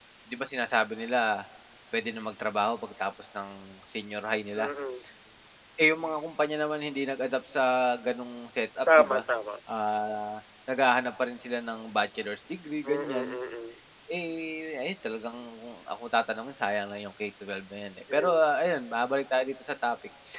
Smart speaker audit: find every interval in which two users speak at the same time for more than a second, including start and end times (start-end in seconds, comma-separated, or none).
none